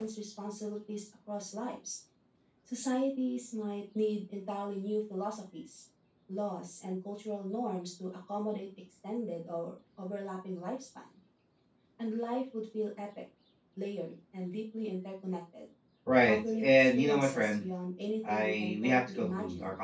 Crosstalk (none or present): present